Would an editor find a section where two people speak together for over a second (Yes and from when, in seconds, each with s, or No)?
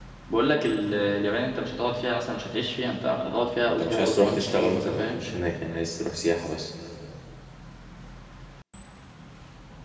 Yes, from 3.6 s